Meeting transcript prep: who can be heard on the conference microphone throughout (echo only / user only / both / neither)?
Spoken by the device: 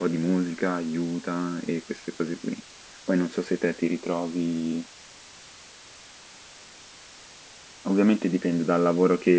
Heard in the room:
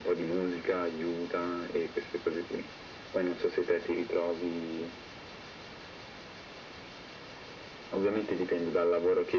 echo only